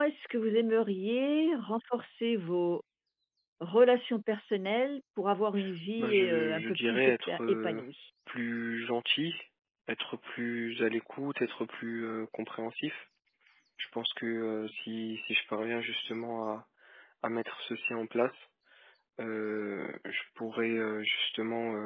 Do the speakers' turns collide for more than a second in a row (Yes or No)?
Yes